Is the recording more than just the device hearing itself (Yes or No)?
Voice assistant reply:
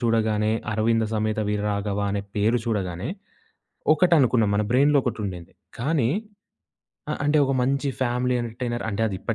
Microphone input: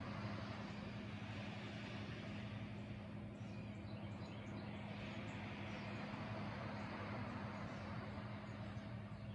No